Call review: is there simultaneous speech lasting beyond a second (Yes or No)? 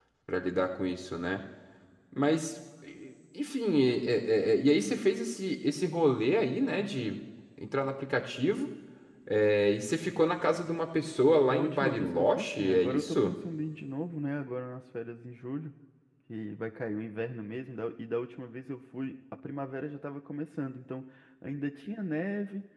Yes